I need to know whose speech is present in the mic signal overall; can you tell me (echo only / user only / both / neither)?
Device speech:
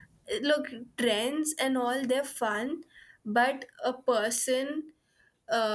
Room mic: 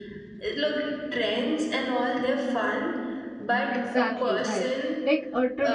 both